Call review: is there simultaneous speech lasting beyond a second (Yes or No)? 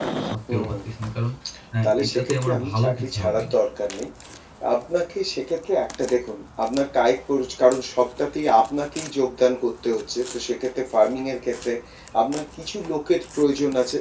Yes